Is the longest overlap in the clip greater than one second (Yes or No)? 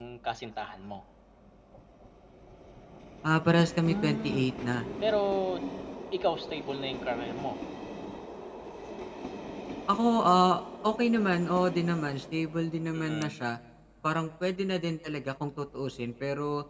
No